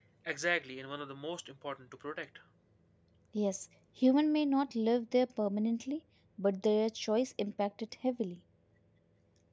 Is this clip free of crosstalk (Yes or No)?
Yes